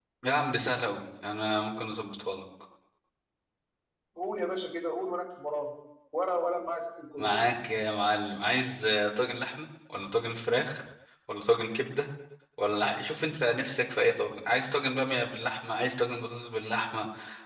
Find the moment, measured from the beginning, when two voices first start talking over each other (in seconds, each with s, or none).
none